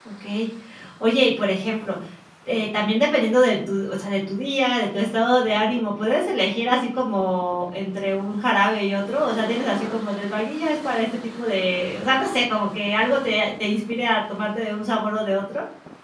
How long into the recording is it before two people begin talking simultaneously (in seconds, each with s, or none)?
none